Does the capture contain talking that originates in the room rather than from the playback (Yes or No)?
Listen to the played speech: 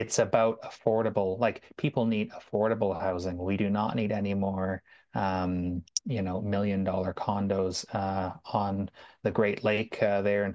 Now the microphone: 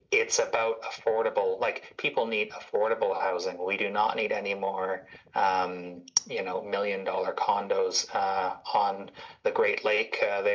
No